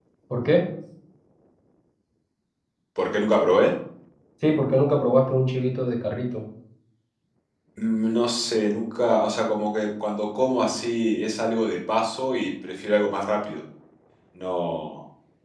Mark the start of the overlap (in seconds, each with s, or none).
none